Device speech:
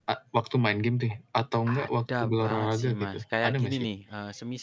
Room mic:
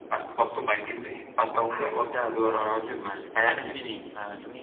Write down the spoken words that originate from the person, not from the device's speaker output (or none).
none